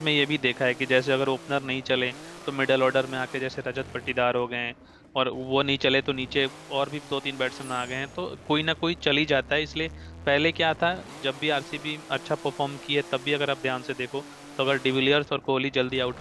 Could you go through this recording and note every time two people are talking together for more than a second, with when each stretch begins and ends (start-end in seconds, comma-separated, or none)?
none